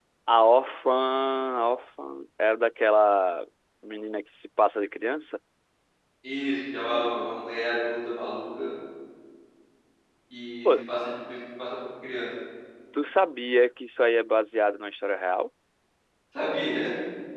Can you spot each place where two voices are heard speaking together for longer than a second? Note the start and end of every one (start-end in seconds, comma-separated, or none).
none